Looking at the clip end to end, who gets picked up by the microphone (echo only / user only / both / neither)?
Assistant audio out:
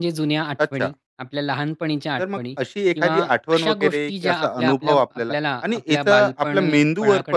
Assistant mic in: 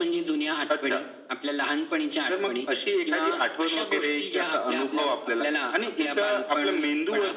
echo only